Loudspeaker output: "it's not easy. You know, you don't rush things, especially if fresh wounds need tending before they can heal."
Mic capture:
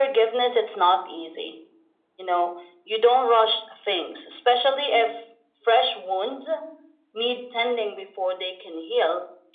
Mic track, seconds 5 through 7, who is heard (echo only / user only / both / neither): echo only